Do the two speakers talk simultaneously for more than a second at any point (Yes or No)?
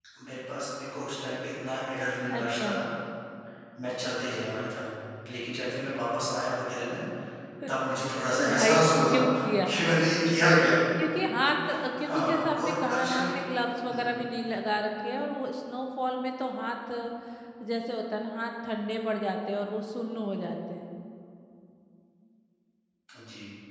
Yes